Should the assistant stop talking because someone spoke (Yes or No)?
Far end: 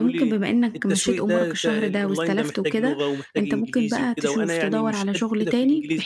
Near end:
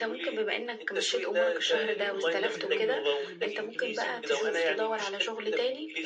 Yes